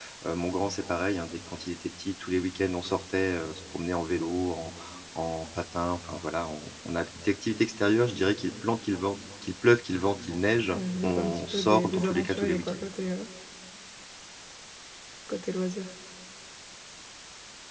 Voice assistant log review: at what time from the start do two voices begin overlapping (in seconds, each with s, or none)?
10.7 s